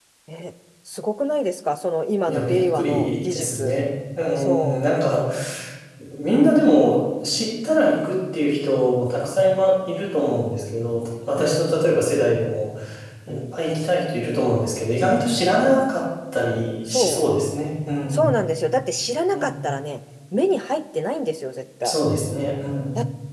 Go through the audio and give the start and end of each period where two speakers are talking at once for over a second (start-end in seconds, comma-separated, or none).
2.3-3.7